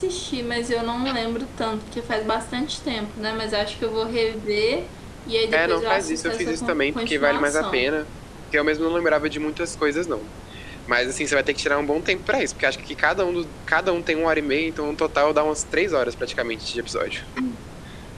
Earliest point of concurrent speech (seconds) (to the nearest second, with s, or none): 6 s